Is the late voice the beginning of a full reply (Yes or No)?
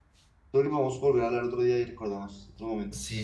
Yes